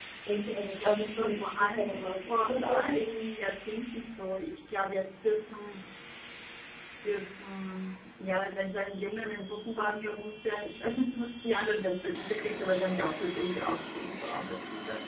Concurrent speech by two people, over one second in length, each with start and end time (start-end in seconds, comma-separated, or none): 0.8-2.9